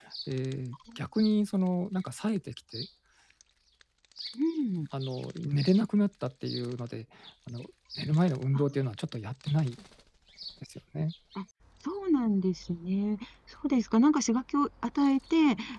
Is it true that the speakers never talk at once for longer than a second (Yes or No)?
Yes